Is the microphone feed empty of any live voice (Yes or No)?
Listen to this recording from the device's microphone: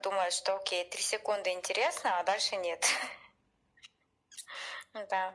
Yes